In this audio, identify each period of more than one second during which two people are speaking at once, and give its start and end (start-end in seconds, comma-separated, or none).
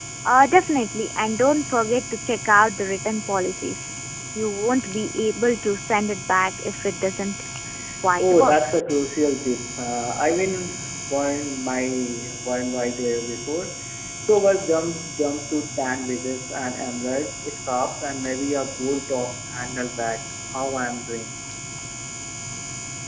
none